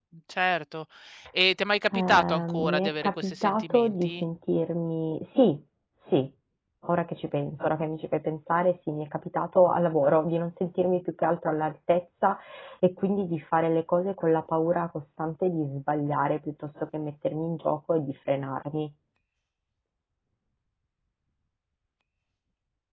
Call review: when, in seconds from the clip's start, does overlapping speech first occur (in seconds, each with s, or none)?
1.9 s